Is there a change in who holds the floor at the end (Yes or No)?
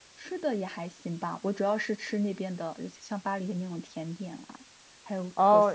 Yes